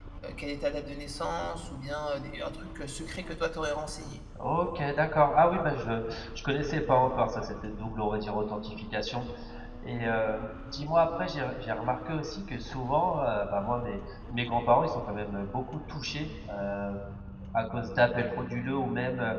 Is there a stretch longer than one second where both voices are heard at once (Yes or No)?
No